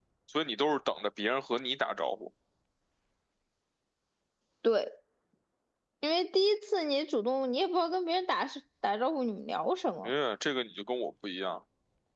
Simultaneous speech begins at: none

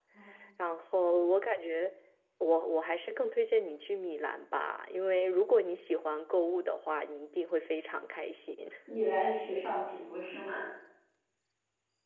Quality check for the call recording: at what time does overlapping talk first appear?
none

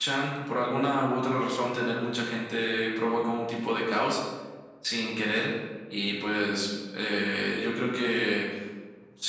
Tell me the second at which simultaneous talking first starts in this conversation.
none

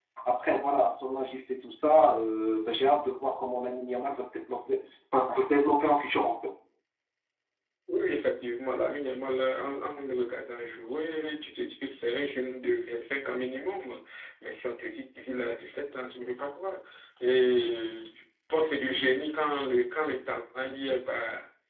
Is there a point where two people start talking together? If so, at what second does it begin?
none

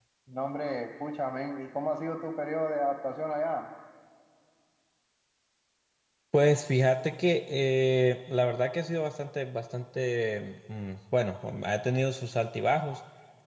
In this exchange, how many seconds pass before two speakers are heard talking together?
none

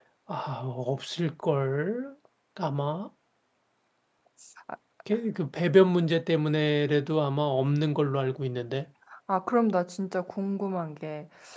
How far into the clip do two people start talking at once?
none

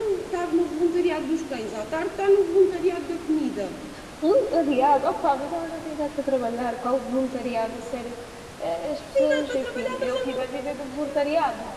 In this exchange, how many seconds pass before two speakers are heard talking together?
9 s

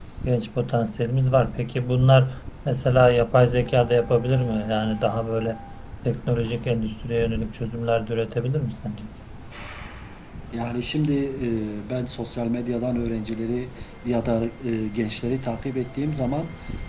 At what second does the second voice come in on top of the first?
none

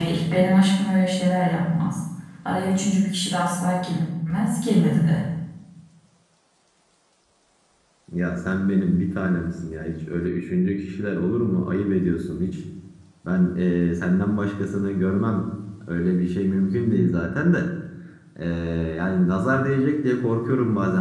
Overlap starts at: none

